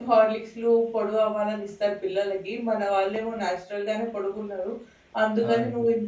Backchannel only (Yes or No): Yes